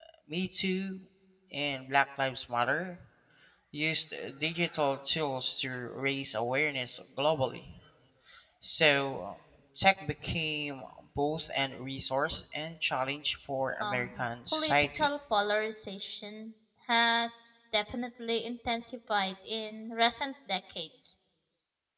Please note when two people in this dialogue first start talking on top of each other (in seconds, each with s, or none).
13.8 s